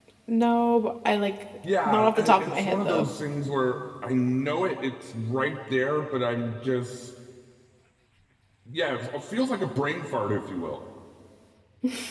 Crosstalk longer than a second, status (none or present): present